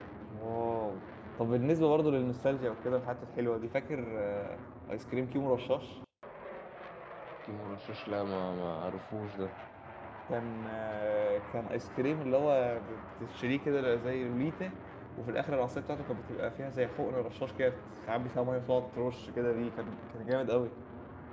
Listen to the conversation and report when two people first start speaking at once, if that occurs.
none

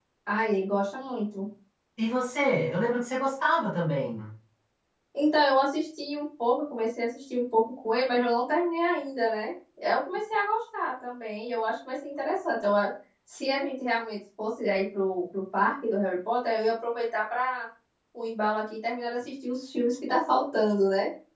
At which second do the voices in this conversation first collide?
none

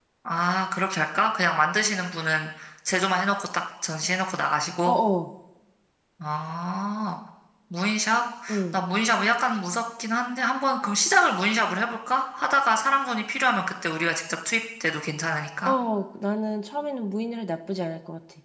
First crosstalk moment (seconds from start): none

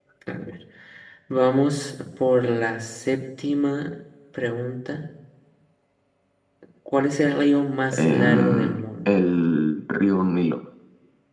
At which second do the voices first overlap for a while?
7.9 s

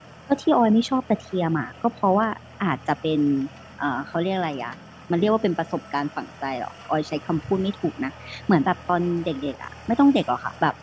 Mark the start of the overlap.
none

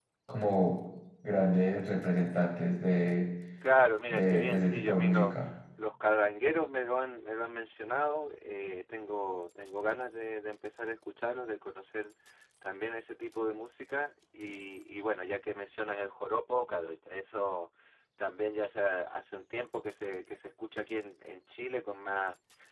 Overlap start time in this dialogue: 4.1 s

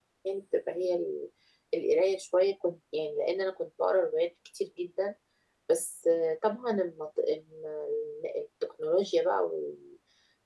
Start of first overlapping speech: none

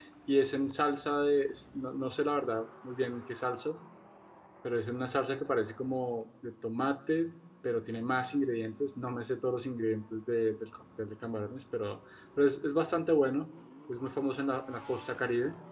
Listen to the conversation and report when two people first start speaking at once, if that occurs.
none

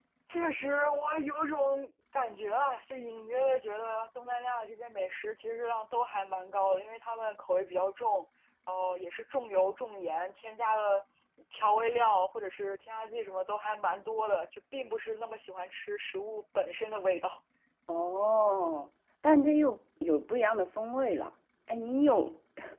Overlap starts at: none

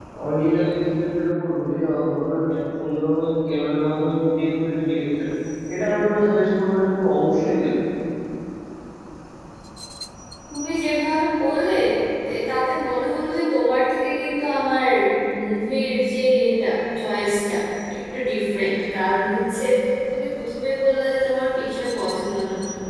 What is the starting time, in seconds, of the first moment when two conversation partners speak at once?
none

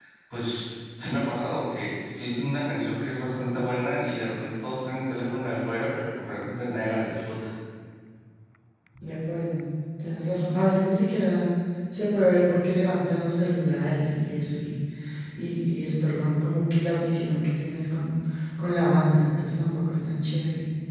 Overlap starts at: none

